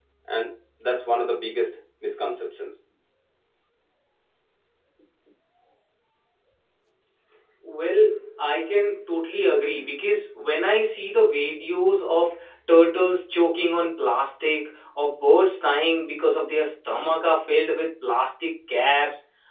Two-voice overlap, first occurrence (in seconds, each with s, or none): none